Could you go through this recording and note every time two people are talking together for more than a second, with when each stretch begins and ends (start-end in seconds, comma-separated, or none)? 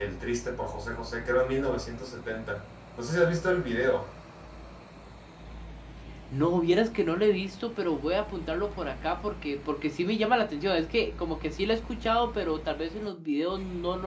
none